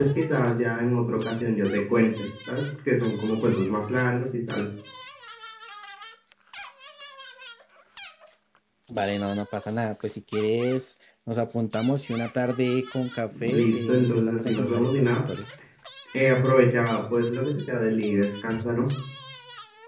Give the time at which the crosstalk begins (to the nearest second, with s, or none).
13 s